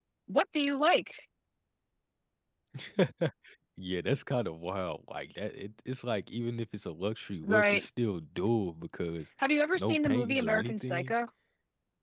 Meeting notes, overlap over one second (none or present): present